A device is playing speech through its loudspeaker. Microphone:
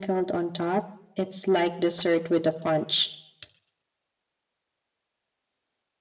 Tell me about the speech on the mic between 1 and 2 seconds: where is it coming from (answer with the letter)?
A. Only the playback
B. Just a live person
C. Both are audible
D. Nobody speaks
A